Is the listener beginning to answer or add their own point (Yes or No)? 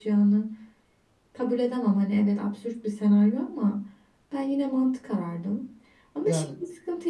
No